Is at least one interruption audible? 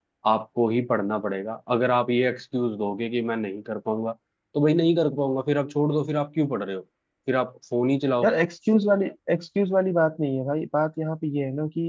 No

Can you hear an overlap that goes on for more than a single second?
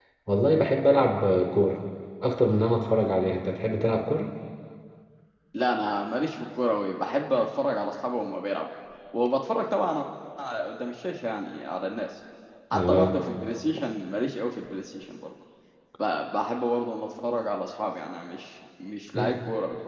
No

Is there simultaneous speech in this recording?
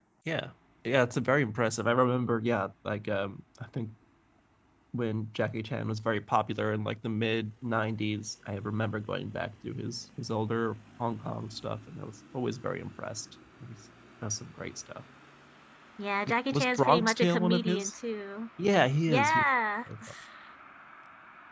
Yes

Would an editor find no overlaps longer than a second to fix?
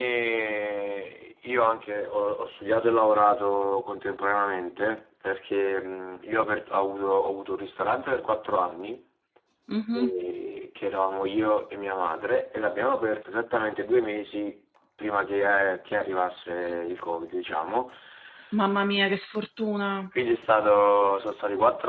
Yes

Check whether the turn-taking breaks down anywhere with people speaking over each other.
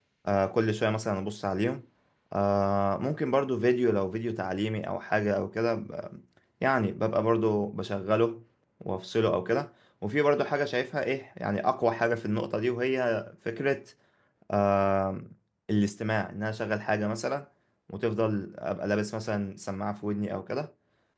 No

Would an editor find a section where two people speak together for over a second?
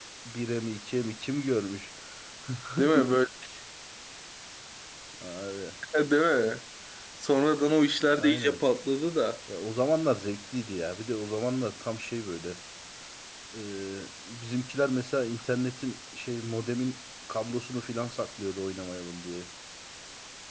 No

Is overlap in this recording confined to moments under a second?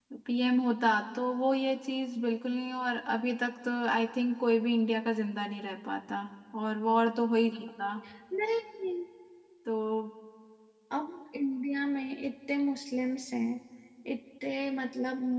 Yes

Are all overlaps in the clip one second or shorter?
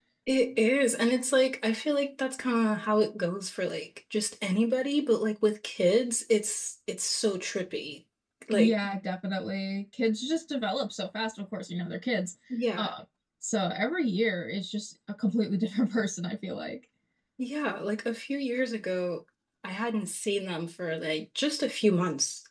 Yes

